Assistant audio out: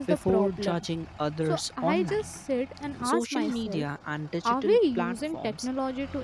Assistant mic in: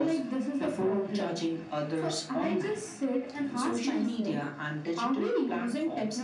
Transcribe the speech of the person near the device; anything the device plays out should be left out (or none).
none